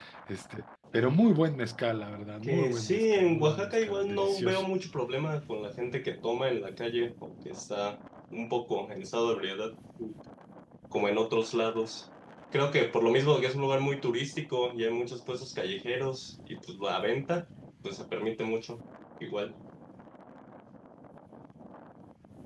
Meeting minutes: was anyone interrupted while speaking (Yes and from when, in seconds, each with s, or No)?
Yes, from 2.5 s